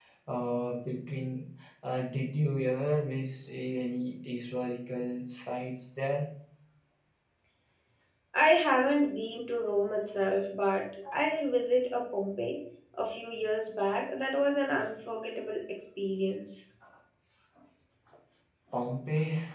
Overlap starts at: none

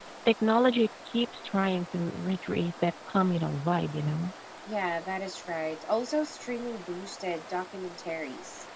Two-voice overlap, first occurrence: none

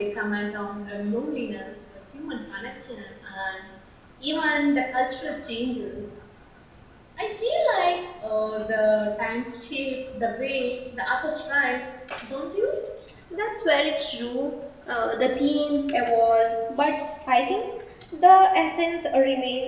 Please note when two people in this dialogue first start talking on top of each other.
none

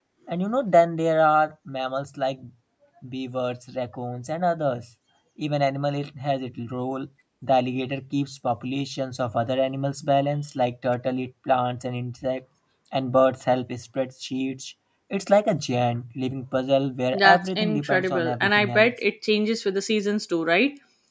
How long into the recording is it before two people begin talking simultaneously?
17.1 s

